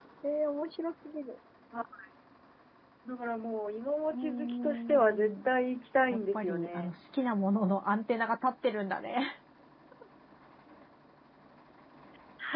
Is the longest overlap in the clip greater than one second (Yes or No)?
Yes